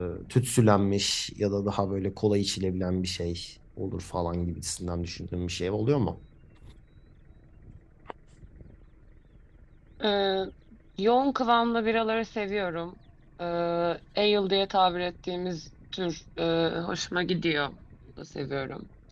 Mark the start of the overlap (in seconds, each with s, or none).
none